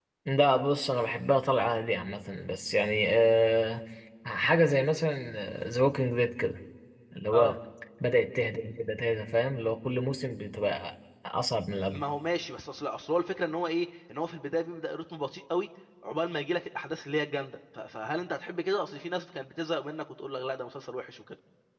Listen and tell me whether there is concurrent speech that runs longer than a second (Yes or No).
No